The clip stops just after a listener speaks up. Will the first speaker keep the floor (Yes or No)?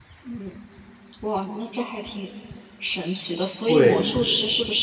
Yes